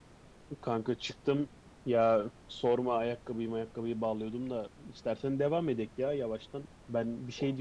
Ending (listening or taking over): listening